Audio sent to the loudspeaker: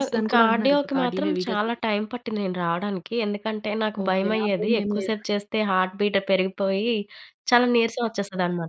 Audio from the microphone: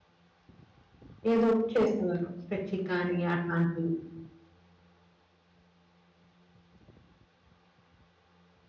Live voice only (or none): ఏదోకటి చేసేవారు. స్ట్రెచింగ్ గాని అట్లాంటివి.